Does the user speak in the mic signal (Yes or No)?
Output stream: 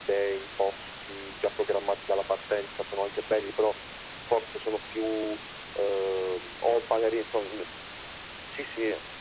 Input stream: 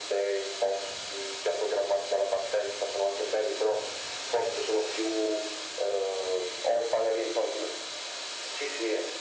No